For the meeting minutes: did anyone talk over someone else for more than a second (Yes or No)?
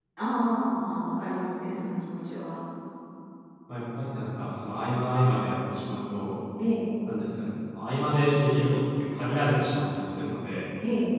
No